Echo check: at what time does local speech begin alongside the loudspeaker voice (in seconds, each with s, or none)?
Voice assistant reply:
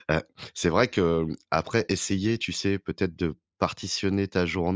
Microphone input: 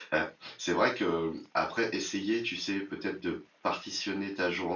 none